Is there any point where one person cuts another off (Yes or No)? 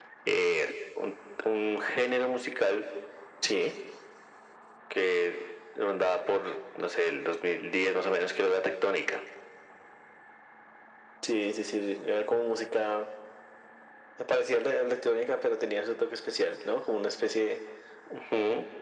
No